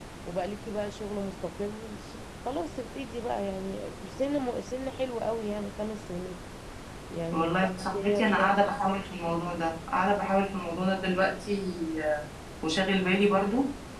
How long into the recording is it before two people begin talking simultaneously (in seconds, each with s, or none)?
7.3 s